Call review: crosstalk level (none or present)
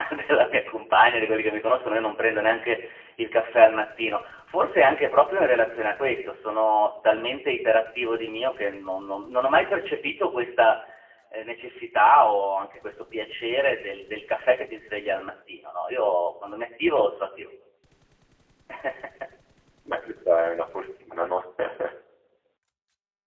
none